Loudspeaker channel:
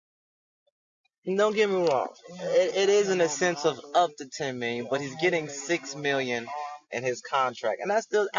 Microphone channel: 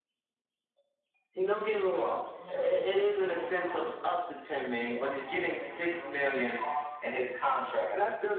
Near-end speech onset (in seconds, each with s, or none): none